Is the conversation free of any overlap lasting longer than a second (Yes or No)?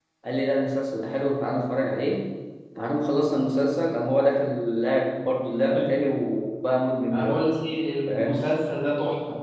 Yes